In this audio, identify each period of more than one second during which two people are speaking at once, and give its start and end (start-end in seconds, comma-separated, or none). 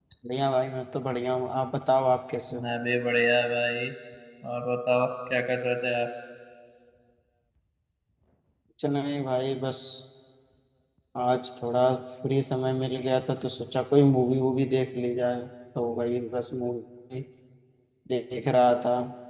none